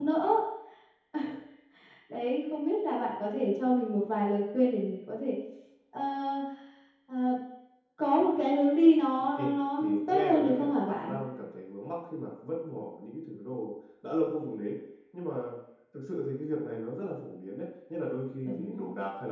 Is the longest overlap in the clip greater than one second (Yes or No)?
Yes